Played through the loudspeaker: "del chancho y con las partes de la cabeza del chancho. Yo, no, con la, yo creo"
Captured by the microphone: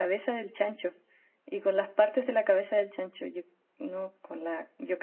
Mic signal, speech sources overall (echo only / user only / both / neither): echo only